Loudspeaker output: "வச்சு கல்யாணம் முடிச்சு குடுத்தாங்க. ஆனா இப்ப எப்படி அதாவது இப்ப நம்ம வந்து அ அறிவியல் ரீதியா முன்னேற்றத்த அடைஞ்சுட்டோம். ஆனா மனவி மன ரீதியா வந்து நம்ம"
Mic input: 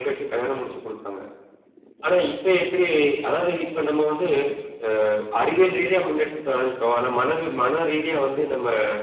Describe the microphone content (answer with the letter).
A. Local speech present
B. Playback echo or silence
B